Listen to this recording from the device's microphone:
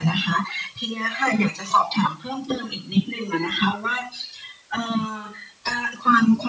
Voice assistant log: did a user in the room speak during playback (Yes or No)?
No